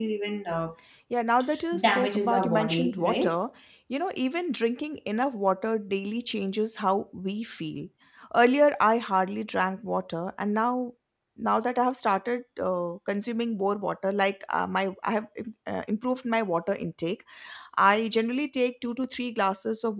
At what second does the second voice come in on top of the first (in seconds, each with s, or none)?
1.8 s